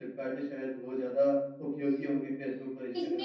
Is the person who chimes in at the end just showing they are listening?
No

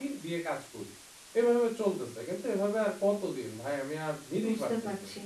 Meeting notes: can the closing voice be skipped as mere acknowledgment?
No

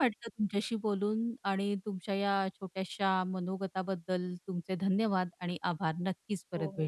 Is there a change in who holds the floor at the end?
Yes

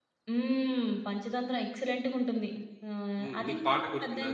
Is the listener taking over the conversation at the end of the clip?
Yes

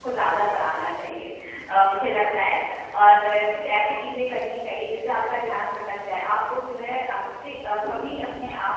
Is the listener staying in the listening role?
Yes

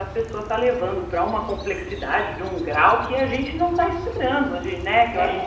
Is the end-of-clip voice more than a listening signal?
No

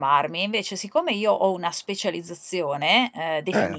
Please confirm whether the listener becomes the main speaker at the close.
No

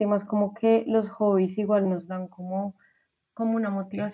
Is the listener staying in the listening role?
Yes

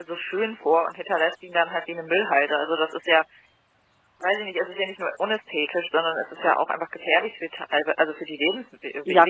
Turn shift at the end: Yes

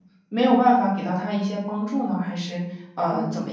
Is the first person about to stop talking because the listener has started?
Yes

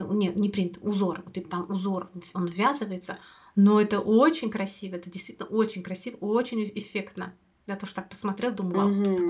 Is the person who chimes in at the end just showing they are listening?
No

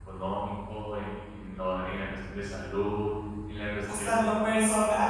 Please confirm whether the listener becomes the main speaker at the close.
Yes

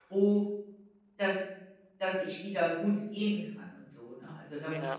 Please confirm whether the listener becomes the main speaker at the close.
Yes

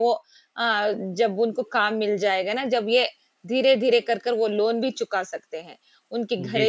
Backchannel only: Yes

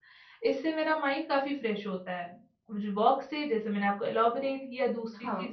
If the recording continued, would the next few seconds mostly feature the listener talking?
No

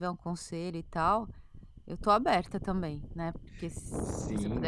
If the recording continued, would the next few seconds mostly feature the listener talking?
Yes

